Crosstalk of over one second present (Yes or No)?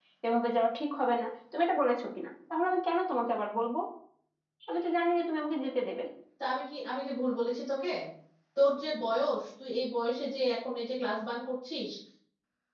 No